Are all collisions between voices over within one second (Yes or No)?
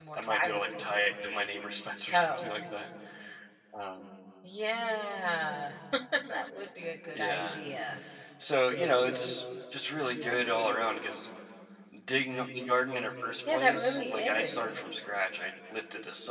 No